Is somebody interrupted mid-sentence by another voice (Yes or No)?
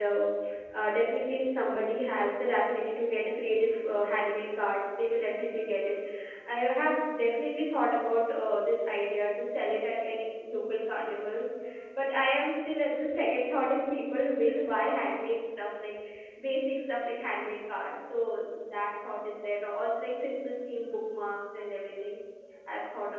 No